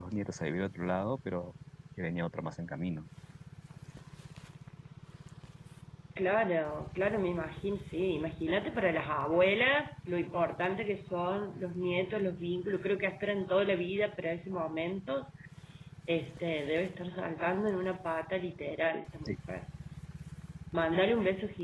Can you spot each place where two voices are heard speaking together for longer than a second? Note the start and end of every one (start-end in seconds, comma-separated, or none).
none